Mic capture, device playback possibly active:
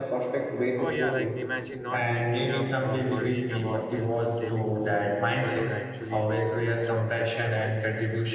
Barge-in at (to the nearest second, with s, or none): 1 s